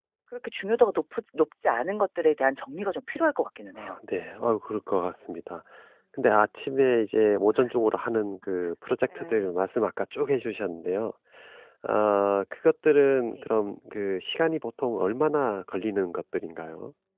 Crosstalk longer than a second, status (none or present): none